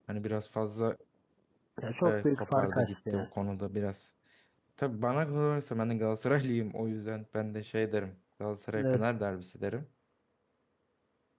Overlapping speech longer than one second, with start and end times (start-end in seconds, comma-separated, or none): 2.0-3.3